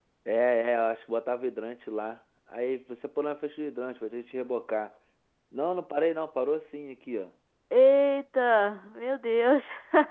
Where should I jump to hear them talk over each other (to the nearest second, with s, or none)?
none